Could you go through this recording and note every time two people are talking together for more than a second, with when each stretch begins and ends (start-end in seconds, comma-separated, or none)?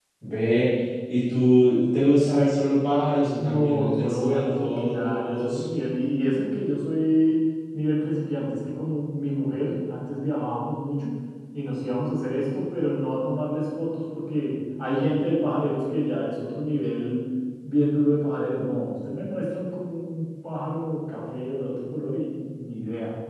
3.4-5.6